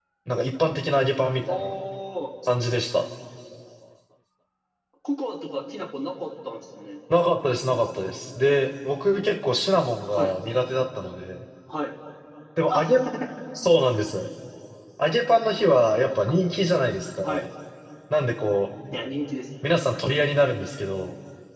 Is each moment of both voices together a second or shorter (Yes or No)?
Yes